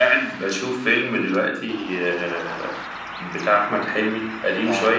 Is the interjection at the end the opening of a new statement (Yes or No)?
No